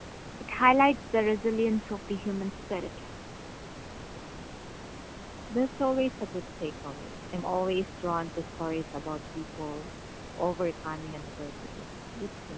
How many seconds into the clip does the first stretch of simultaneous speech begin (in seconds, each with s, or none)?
none